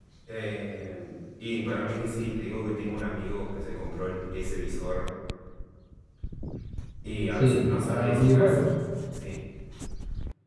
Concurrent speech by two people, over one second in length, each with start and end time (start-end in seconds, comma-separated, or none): 7.4-8.7